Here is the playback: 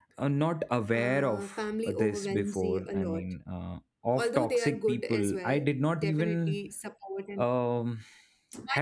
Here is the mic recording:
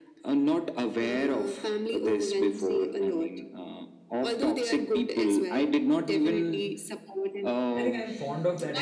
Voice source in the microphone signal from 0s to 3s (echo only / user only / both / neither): echo only